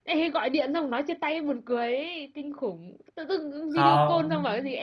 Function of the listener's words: listening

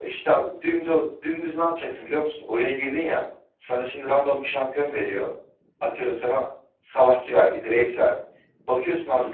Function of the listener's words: listening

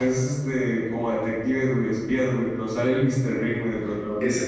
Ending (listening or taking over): taking over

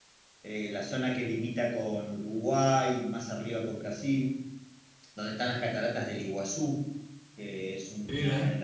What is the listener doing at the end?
listening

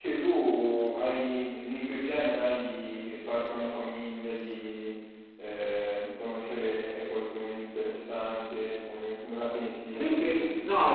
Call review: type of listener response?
taking over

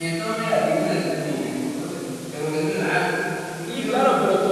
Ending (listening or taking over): taking over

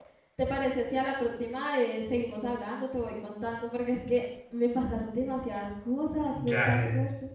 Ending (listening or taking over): taking over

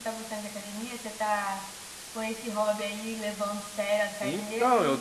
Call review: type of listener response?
taking over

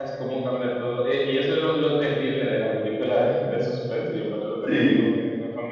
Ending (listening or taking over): listening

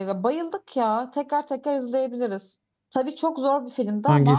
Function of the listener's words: listening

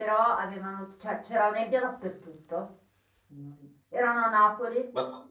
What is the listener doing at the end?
listening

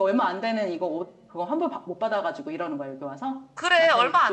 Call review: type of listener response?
taking over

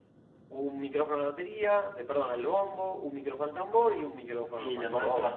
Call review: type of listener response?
taking over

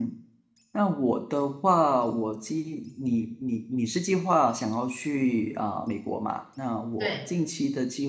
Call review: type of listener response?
listening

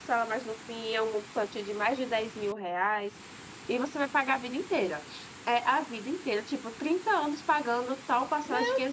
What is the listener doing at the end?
taking over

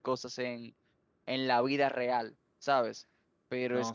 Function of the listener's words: listening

